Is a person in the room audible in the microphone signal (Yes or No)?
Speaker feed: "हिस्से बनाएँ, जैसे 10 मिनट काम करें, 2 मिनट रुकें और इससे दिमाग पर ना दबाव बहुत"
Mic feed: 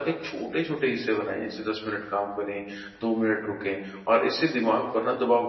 No